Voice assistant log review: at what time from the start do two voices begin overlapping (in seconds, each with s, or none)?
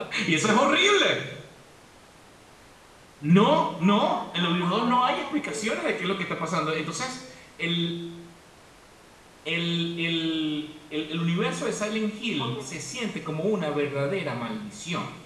3.8 s